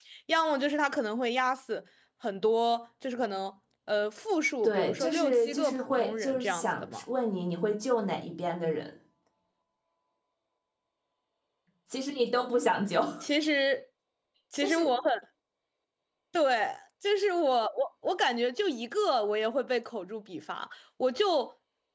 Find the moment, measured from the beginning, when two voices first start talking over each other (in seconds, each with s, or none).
4.6 s